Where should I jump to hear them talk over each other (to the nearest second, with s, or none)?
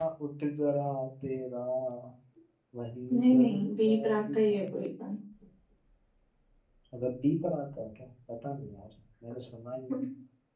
3 s